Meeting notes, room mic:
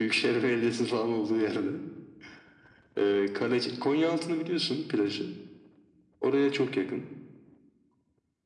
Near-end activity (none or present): none